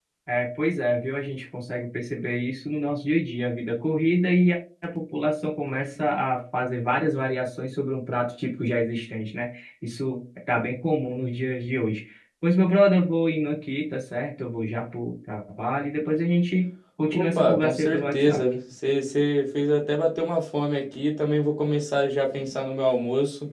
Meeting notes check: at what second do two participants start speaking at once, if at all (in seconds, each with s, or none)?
17.1 s